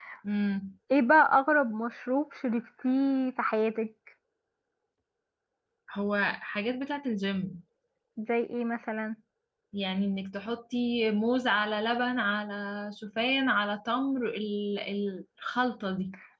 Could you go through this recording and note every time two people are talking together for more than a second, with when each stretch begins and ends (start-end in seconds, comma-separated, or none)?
none